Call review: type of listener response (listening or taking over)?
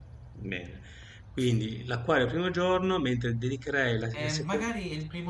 taking over